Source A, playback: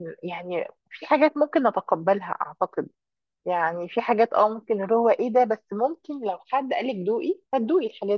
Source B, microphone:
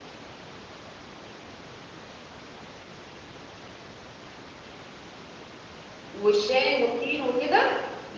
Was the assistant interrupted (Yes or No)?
Yes